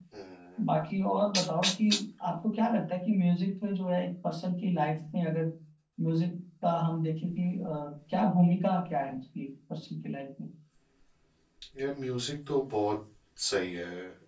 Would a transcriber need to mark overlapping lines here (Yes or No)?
No